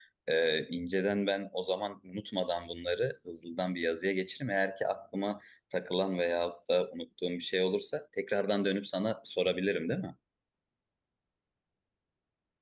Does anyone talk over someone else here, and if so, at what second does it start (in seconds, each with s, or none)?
none